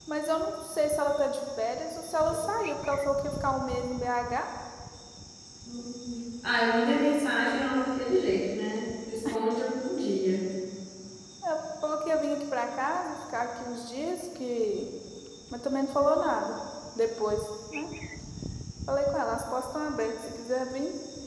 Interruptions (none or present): none